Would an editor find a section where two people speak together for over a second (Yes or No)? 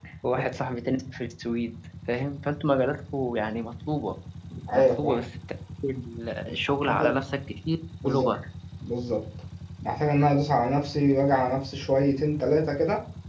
No